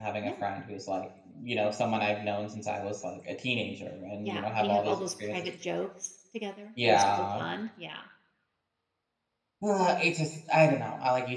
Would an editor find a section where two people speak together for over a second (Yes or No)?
Yes